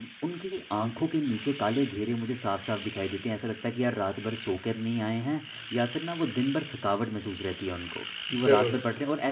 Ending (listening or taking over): listening